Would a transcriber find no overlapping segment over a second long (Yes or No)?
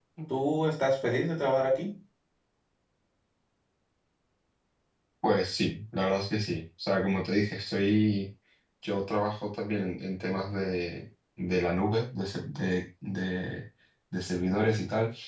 Yes